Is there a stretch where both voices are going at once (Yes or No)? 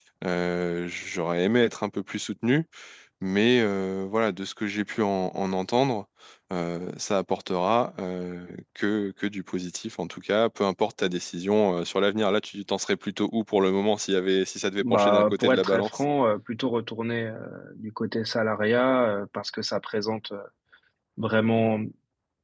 Yes